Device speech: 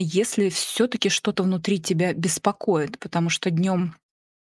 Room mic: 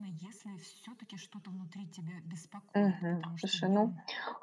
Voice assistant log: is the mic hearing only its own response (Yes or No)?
No